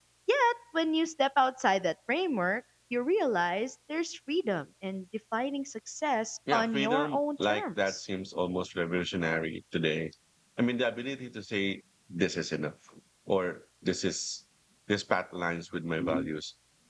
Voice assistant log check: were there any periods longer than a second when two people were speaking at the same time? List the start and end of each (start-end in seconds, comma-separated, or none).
6.5-8.1